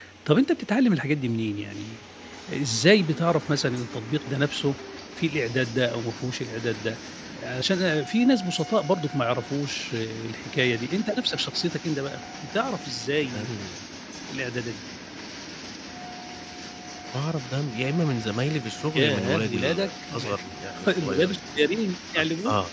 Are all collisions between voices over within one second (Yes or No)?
No